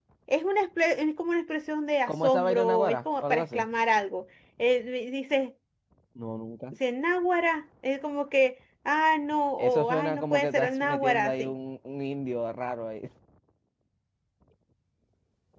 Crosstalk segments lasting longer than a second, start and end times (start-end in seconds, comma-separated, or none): 2.1-3.6, 9.6-11.5